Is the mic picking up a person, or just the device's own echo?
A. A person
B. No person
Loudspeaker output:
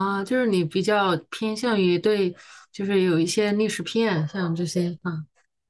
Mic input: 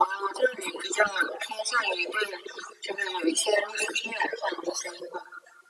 B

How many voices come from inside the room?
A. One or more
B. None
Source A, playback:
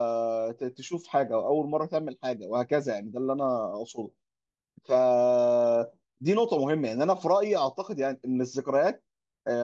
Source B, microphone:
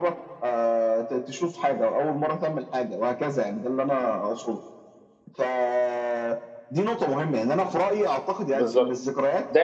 A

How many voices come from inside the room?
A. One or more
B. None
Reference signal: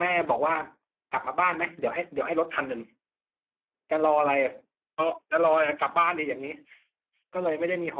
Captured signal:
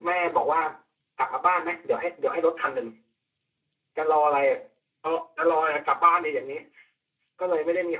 B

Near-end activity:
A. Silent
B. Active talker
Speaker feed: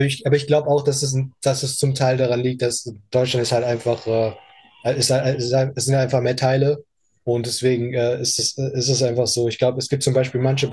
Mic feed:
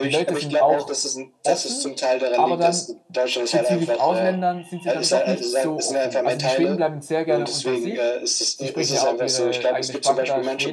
B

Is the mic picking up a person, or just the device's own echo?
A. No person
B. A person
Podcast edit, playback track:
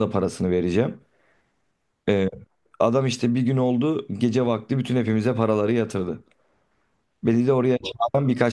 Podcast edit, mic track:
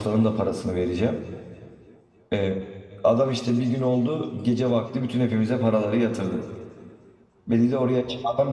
A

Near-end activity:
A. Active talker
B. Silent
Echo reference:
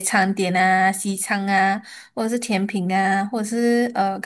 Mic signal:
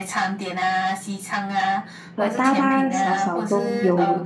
A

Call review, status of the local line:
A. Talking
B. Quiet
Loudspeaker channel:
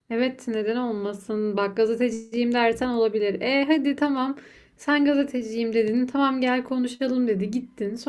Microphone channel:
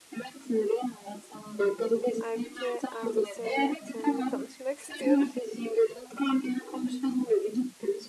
A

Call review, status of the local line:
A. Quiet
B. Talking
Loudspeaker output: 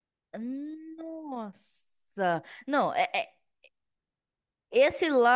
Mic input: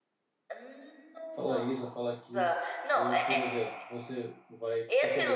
B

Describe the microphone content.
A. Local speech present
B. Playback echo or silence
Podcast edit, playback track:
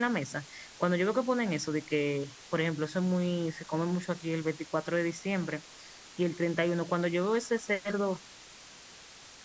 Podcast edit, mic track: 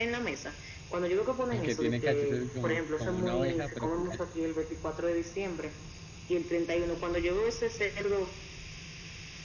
A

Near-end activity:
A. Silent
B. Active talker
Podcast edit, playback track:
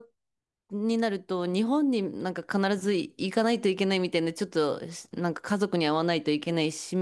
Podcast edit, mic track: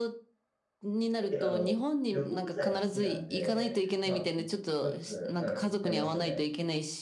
B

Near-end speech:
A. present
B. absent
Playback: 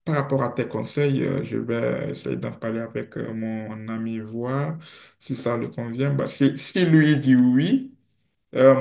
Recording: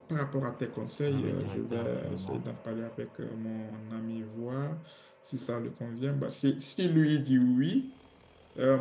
A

